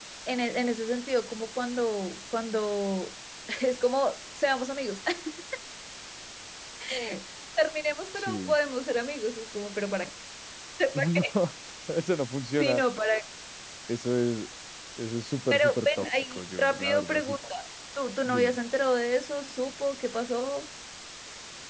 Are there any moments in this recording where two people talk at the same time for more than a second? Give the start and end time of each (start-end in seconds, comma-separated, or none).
15.5-17.4